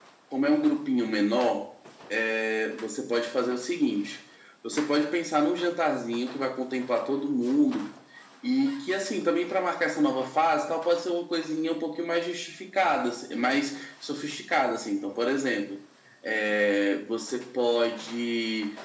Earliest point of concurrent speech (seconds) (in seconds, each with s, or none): none